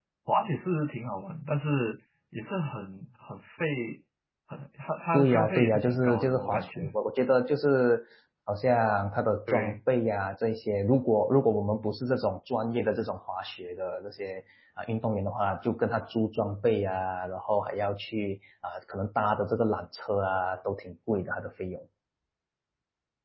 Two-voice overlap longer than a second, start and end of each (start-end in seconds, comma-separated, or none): 5.1-6.8